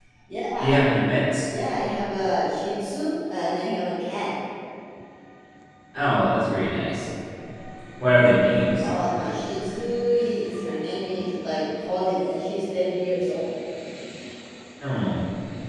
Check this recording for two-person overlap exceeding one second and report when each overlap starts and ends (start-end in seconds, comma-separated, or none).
none